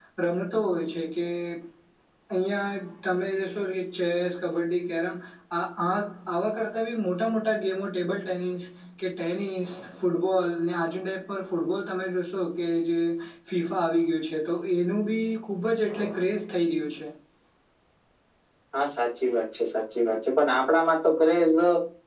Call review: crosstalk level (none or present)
none